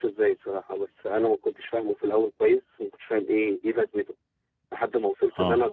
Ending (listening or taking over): listening